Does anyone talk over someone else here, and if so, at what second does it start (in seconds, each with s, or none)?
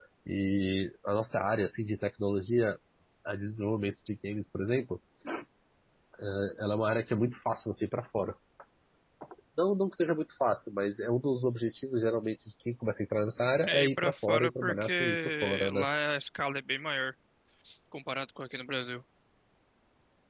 13.6 s